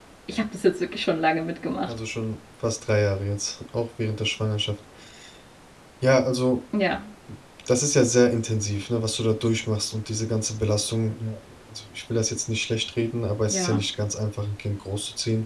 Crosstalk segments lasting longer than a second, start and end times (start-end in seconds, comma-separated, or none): none